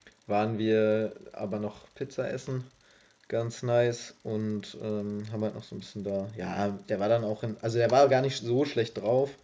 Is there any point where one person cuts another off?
No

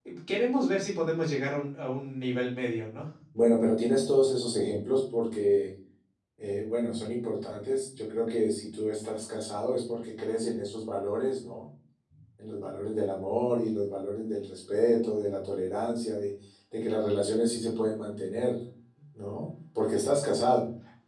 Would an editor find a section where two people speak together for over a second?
No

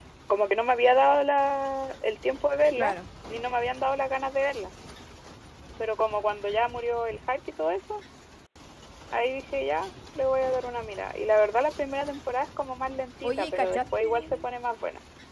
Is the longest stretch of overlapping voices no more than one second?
No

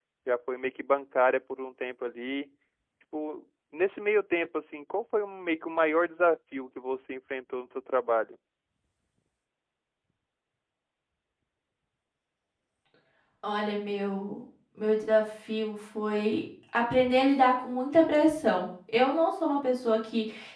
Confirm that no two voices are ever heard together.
Yes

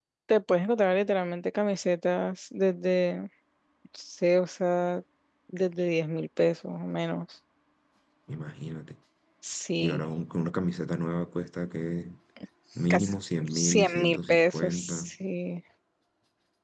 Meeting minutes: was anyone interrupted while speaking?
Yes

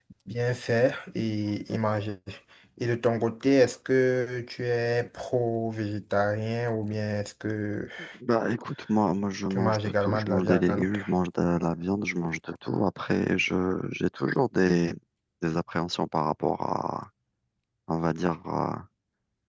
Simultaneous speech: Yes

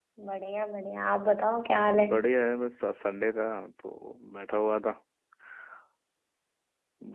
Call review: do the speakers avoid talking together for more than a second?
Yes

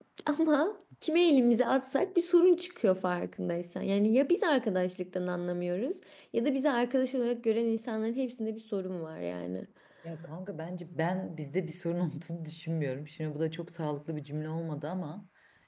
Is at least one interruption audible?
No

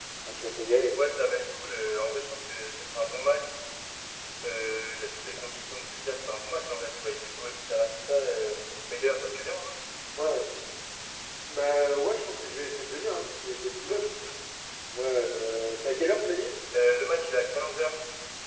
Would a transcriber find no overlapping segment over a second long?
Yes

